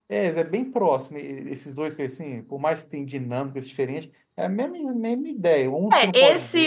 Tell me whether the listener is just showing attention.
No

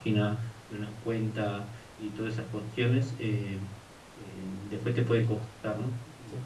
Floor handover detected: No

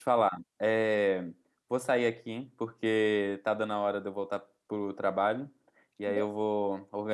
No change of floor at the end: Yes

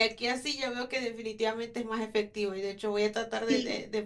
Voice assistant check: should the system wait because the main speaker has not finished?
Yes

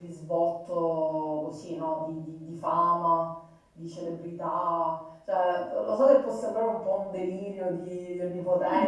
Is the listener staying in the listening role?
No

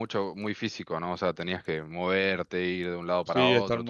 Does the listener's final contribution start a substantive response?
Yes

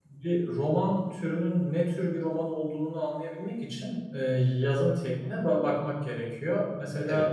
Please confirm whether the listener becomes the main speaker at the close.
No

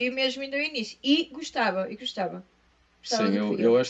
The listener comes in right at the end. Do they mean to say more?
Yes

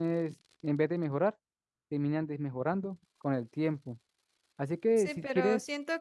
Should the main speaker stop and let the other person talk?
Yes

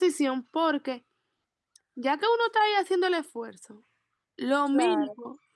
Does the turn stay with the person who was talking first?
Yes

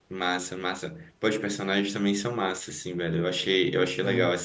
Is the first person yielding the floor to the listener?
No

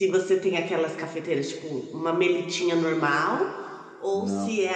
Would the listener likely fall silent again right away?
Yes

